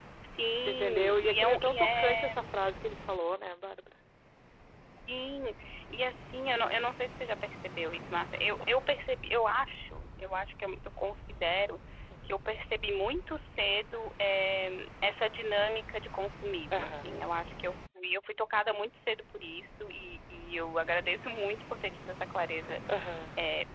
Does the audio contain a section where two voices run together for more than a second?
Yes, from 0.6 s

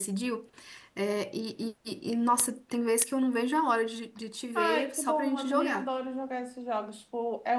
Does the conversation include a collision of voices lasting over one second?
Yes, from 4.6 s

